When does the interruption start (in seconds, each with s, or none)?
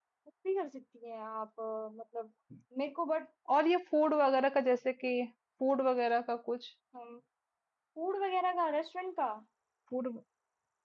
none